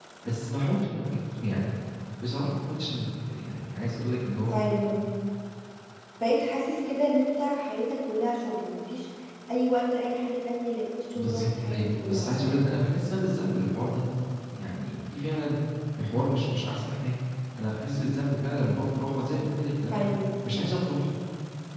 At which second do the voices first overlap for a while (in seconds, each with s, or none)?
11.1 s